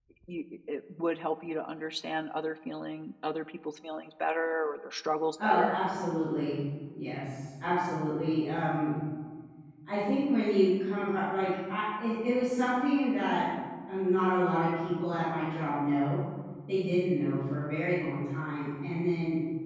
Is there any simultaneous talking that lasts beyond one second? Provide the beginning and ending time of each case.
none

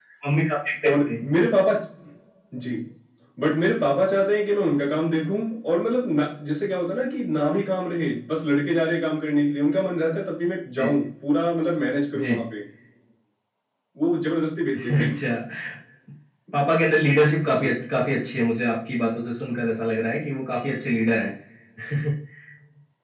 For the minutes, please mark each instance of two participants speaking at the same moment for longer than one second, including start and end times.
none

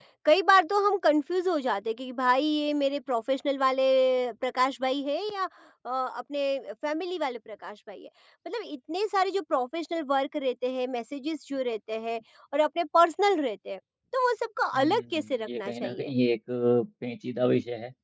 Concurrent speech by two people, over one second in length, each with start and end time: 14.8-16.1

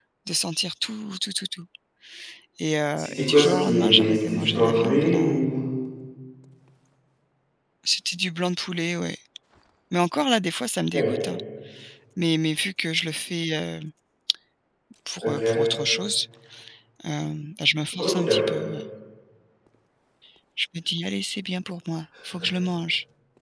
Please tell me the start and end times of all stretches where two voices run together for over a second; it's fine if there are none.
3.0-5.4

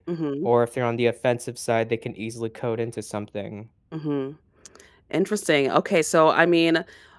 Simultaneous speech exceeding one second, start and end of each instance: none

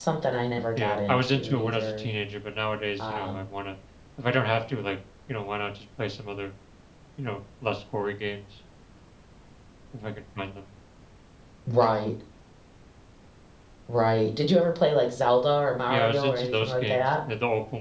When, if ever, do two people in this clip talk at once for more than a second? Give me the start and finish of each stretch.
0.8-2.1, 15.9-17.1

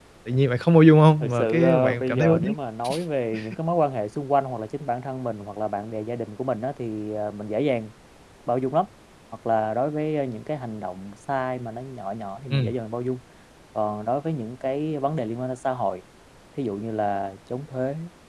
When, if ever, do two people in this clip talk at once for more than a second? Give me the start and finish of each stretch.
1.2-2.5

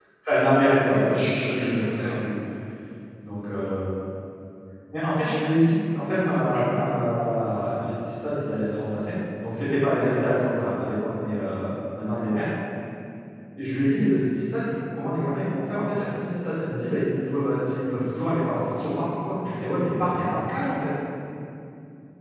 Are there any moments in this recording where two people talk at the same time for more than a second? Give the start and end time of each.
0.9-2.1

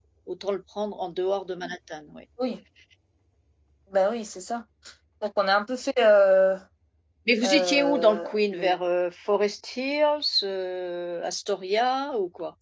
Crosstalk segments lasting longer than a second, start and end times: 7.4-8.7

